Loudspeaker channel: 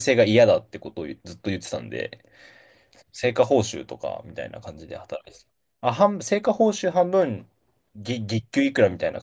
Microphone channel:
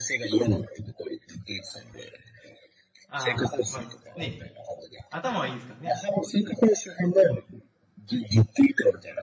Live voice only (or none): あー、まあね、頭はいいですからね。